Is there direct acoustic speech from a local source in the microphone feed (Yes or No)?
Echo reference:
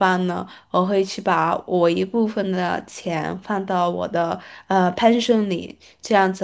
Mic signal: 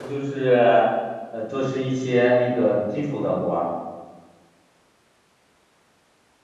Yes